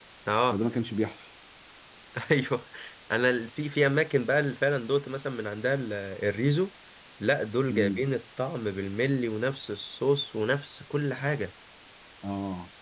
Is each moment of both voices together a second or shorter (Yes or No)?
Yes